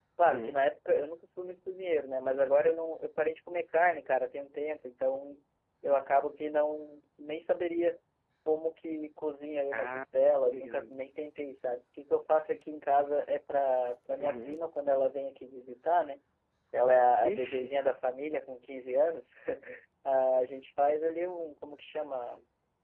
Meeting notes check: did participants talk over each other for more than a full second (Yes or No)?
No